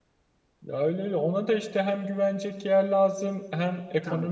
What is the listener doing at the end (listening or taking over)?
listening